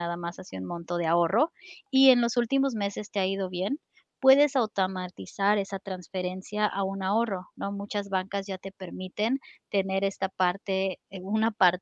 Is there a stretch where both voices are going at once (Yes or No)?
No